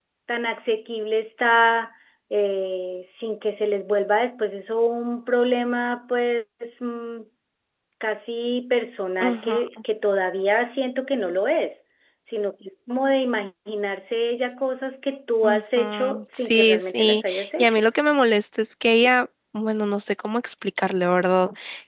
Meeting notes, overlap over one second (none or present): present